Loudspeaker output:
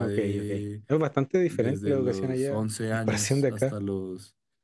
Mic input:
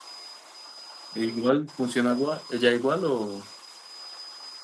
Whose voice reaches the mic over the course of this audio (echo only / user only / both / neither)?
user only